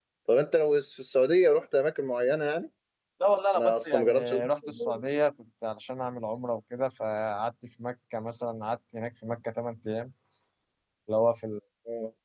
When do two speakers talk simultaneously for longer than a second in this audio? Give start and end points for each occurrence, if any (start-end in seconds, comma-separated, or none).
3.6-5.0